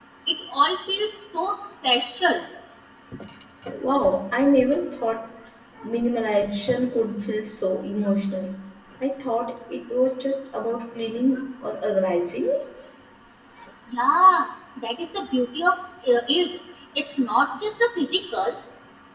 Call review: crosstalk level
none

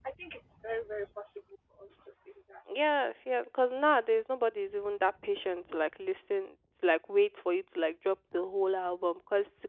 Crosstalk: none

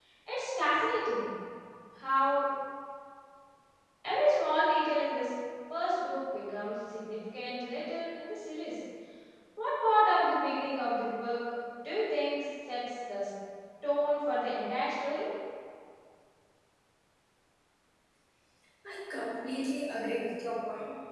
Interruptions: none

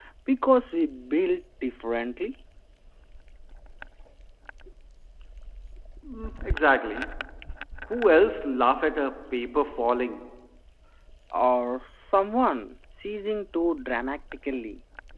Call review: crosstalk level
none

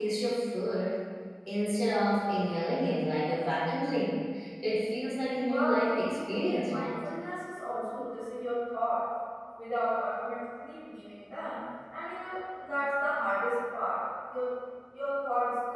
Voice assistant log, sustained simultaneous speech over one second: present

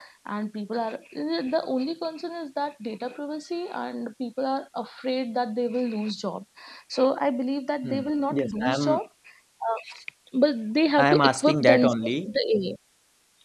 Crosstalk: present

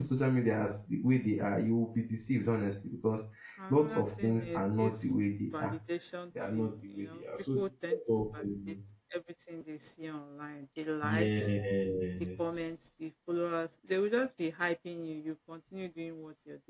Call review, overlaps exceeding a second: present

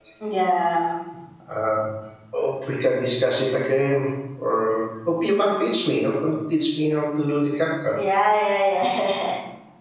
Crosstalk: none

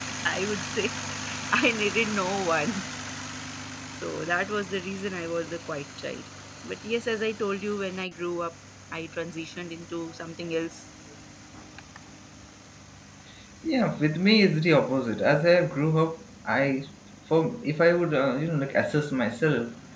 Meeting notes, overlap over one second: none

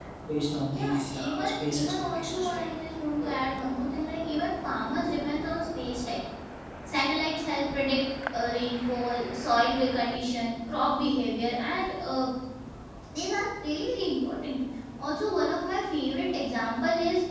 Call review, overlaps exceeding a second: present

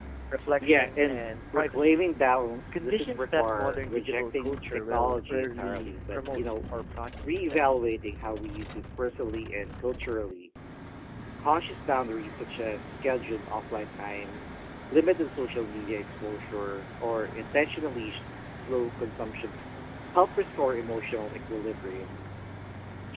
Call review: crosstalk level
present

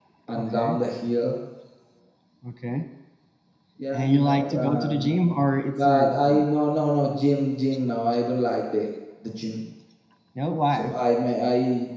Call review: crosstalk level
present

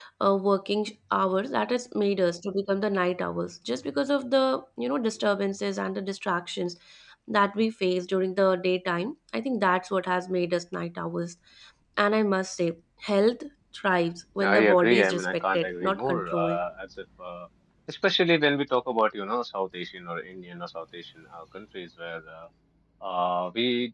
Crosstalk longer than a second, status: present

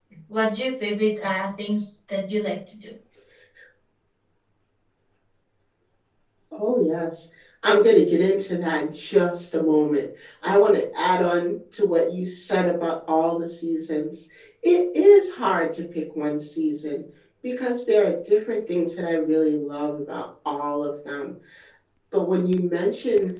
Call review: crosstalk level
none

